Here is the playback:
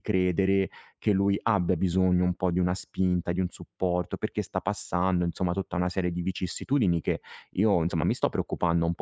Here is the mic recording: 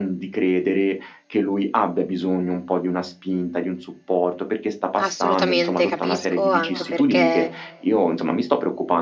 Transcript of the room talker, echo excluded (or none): Assolutamente, capisco, anche perché,